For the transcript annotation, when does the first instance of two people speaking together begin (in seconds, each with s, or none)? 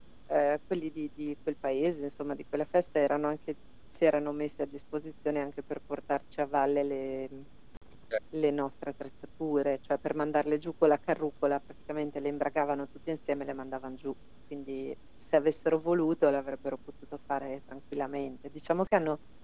none